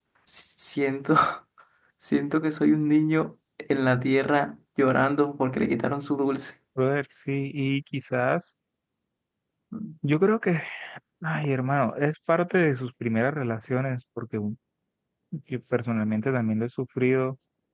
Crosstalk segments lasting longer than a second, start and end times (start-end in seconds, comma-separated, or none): none